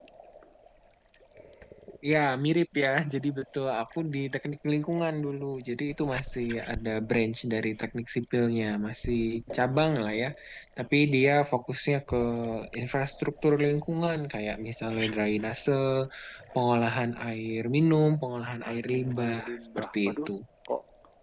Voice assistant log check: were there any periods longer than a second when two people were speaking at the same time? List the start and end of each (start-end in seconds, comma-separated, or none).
18.7-20.3